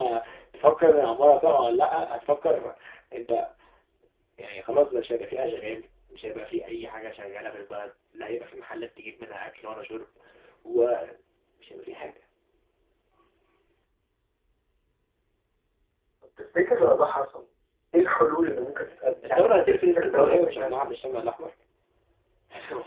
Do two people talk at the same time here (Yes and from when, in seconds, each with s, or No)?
Yes, from 19.2 s